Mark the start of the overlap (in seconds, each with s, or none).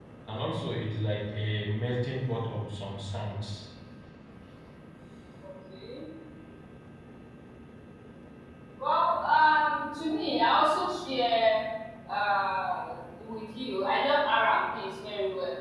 none